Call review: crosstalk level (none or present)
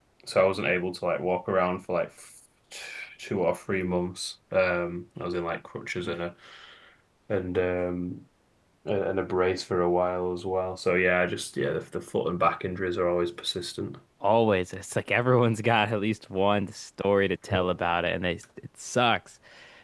none